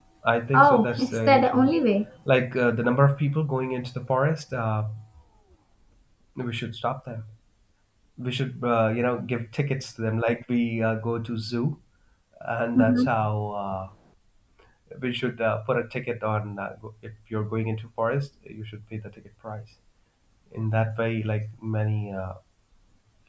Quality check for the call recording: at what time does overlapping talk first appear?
0.5 s

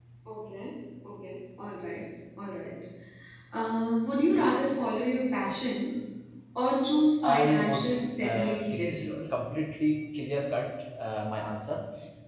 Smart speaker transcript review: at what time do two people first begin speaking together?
7.2 s

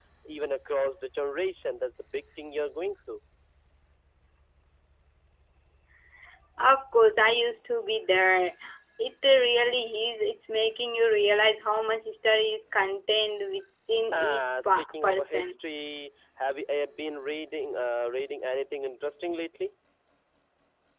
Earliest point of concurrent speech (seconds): 14.1 s

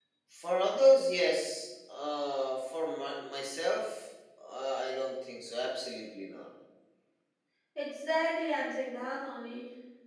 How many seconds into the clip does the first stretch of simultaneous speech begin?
none

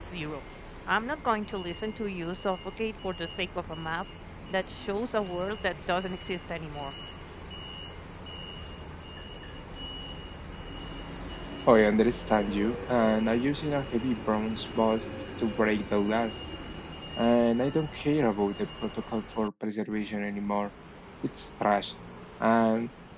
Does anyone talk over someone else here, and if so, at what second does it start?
none

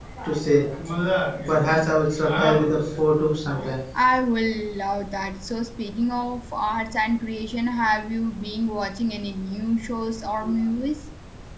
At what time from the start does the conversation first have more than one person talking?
none

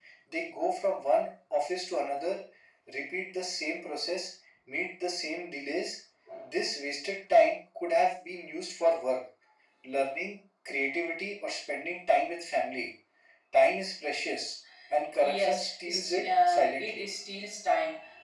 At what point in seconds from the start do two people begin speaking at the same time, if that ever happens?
15.2 s

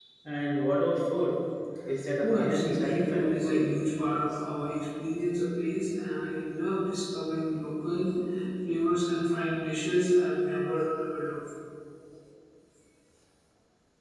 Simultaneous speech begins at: 2.2 s

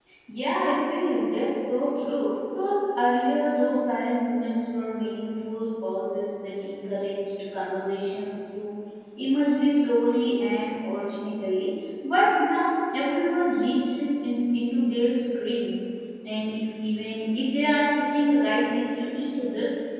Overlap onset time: none

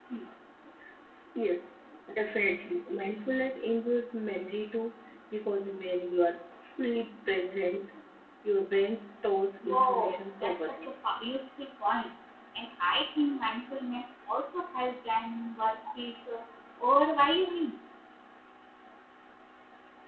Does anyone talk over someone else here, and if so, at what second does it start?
9.6 s

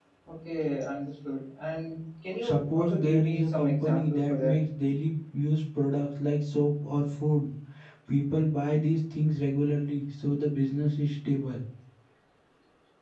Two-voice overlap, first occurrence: 2.4 s

